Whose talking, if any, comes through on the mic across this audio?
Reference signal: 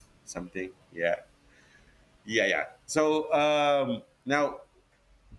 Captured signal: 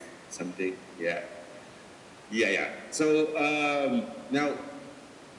echo only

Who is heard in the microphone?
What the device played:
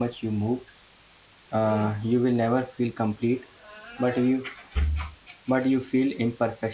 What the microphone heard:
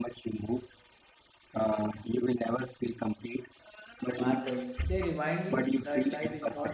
both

